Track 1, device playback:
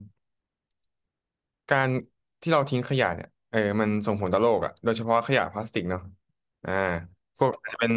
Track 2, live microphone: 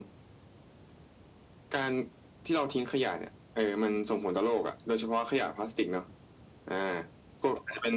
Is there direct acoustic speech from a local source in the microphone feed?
No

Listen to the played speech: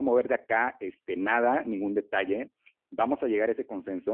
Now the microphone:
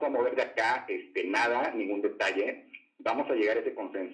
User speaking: No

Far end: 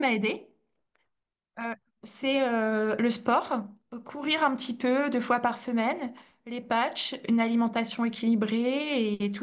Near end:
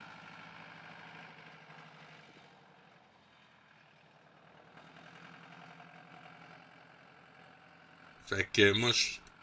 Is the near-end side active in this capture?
Yes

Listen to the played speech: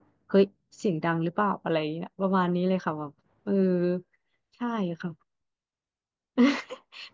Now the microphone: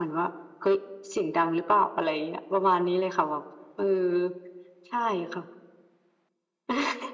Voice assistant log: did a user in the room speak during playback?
No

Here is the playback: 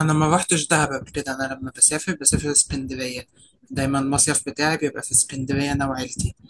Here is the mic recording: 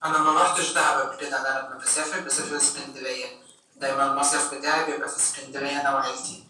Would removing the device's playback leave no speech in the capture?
Yes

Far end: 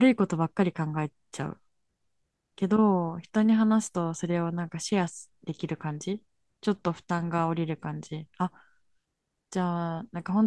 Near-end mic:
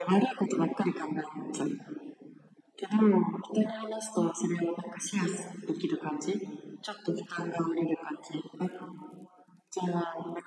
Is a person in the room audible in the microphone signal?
No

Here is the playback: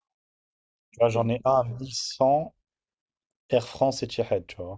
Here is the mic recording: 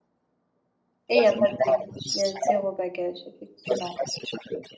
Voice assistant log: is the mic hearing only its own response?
No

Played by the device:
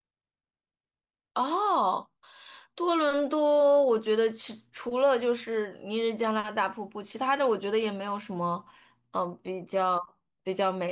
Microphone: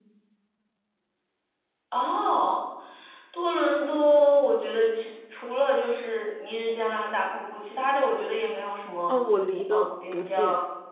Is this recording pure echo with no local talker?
No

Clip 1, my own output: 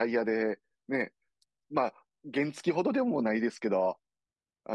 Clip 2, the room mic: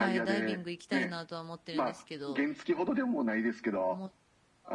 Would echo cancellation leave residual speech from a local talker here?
Yes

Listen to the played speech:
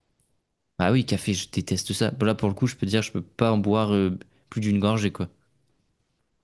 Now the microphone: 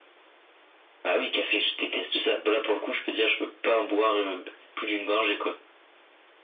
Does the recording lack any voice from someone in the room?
Yes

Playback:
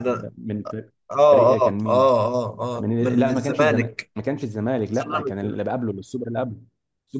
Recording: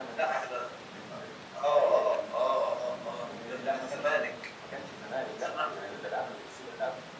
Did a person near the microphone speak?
No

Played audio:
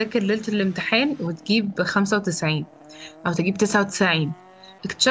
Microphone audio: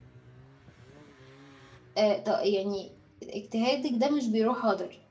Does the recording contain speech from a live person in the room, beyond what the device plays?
Yes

